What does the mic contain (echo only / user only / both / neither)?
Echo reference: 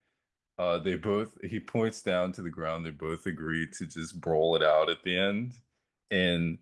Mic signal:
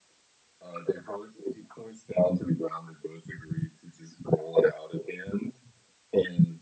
echo only